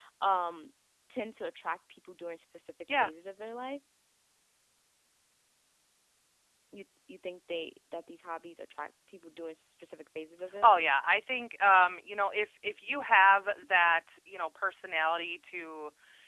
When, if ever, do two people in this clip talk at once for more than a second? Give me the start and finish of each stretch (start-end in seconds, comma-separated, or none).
none